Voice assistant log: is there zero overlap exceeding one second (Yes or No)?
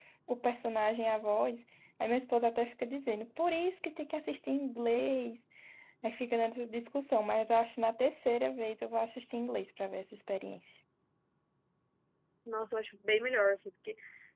Yes